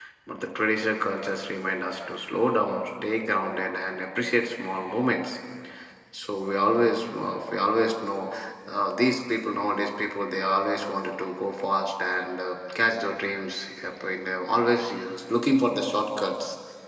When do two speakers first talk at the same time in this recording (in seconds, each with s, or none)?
none